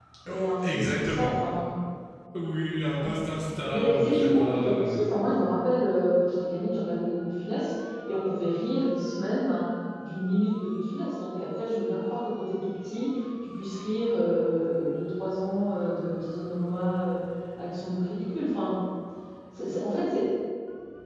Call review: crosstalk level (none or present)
present